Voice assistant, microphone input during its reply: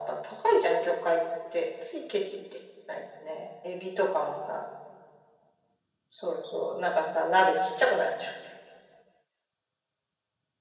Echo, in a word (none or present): present